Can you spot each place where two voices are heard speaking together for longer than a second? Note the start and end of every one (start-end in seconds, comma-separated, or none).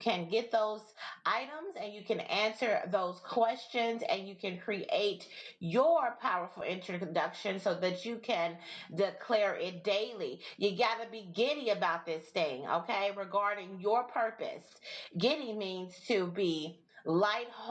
none